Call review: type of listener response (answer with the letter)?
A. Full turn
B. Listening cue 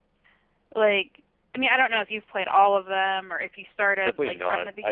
A